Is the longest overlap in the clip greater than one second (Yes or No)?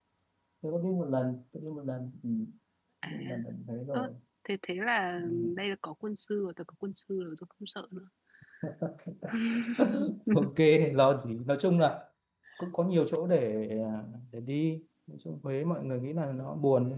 No